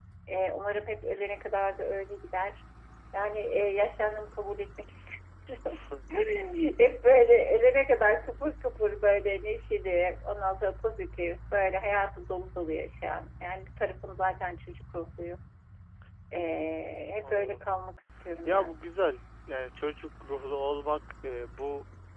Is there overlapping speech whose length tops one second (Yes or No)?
No